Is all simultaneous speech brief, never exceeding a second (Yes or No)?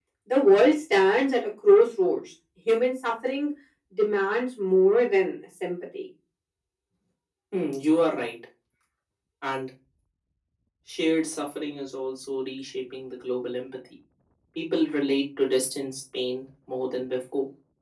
Yes